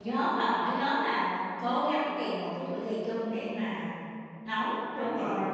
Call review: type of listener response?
taking over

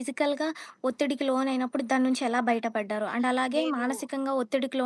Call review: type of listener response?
listening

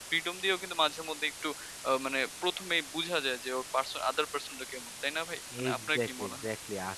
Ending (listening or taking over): taking over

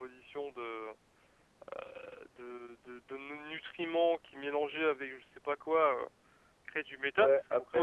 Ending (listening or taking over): taking over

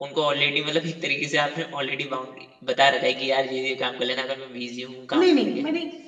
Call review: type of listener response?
taking over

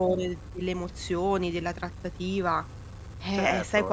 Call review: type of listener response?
taking over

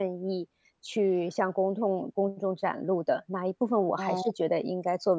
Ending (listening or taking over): listening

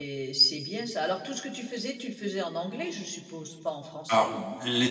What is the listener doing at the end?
taking over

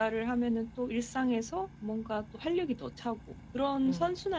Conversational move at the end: listening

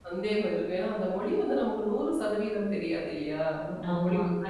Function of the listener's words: taking over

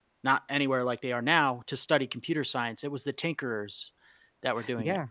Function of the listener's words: taking over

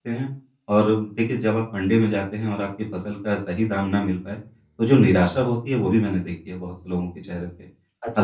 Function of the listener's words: taking over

